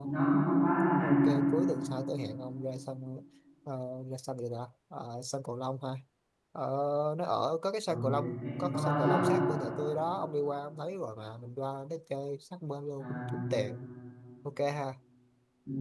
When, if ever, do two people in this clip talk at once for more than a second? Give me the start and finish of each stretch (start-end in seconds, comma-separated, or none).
7.9-9.3